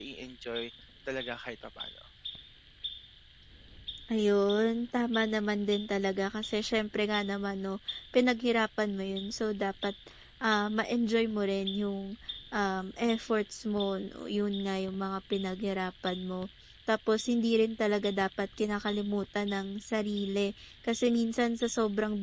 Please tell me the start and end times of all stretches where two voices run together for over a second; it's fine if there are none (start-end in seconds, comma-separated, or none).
none